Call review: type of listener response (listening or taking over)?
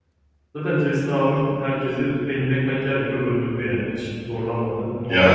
taking over